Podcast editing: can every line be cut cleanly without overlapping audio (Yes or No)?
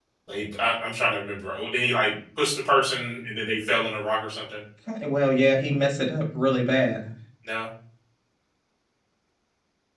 Yes